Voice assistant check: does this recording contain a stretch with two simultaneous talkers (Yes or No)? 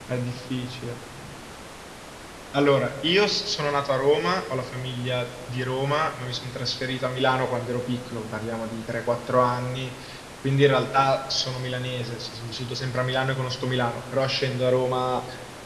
No